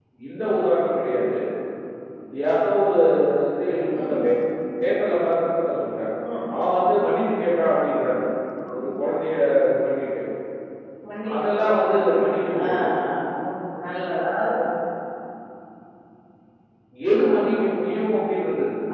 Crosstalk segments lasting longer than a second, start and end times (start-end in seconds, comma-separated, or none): 11.4-12.7